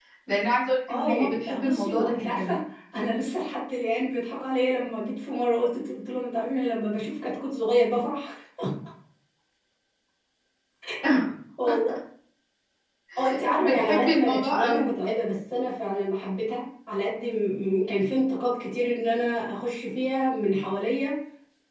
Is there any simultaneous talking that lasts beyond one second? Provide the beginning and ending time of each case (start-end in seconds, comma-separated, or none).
0.9-2.6, 13.6-14.9